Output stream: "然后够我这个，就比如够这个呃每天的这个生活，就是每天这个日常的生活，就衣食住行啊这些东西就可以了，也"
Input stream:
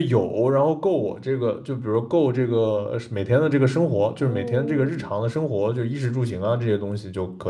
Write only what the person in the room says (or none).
哦，